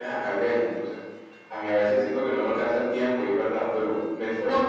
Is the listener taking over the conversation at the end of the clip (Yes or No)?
Yes